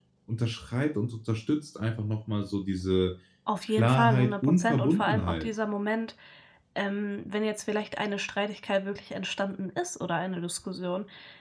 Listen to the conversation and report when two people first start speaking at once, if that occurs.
3.7 s

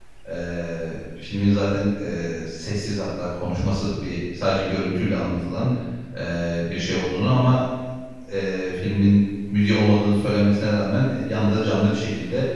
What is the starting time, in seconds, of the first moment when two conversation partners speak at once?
none

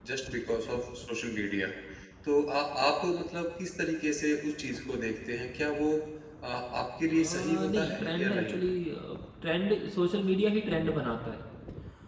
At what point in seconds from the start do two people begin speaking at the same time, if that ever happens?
7.1 s

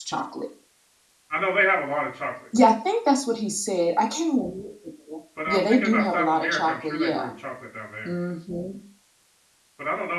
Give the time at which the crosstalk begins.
5.5 s

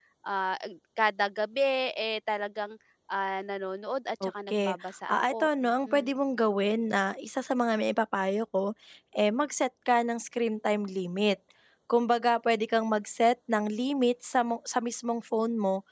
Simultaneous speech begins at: 4.2 s

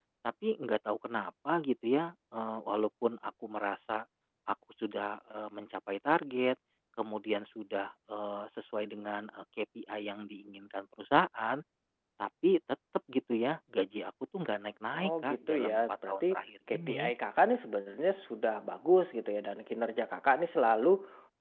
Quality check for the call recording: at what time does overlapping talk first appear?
14.9 s

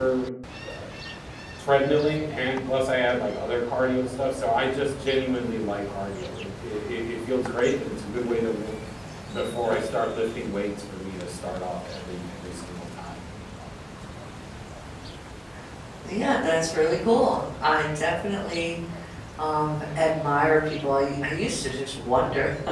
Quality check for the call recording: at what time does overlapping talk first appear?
none

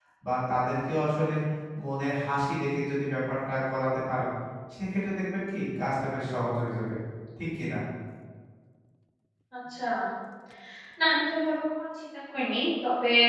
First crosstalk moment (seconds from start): none

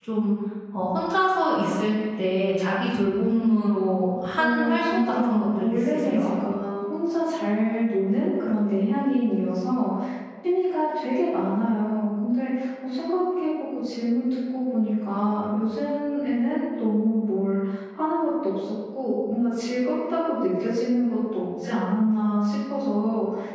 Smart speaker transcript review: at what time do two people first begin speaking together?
4.4 s

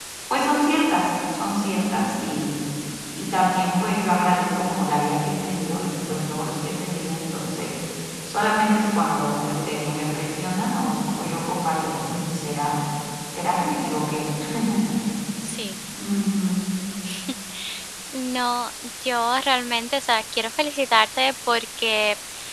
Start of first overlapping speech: none

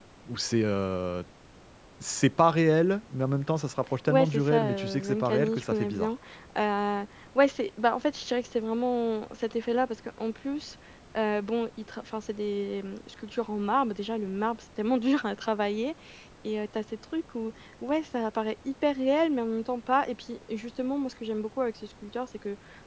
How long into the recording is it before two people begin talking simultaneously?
4.1 s

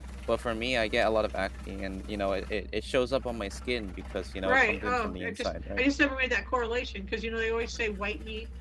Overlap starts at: 4.4 s

